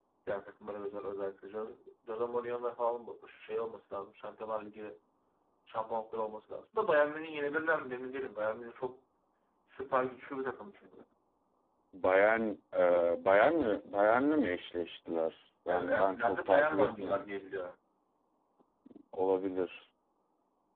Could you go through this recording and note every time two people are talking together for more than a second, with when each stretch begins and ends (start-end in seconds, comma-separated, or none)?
15.7-17.3